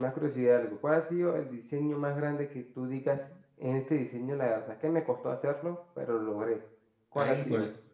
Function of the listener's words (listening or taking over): taking over